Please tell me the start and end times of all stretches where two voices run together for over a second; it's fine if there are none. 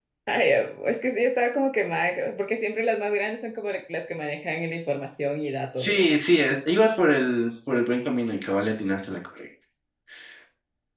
none

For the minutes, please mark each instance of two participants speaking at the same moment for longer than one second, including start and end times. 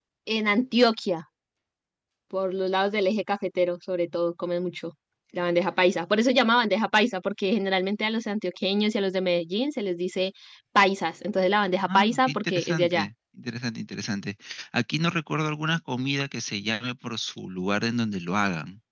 11.8-13.1

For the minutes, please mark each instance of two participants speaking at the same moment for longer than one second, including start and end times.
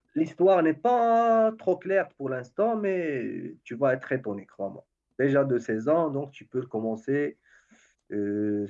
none

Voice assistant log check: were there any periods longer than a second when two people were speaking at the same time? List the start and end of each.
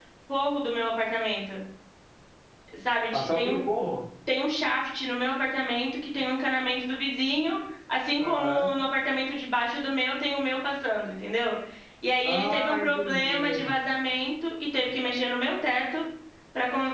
12.2-13.7

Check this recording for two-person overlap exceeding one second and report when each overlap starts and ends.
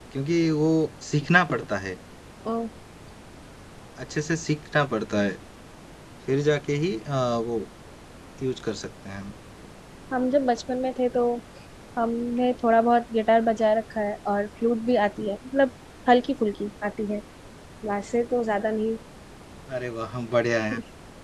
none

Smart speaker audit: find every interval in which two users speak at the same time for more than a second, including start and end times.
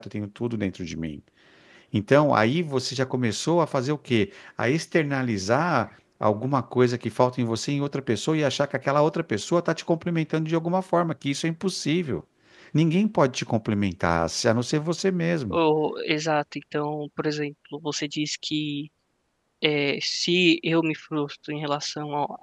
none

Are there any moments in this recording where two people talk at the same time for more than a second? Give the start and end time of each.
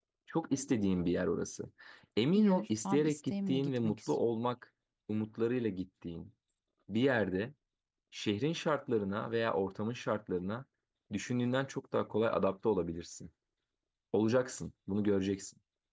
2.4-4.1

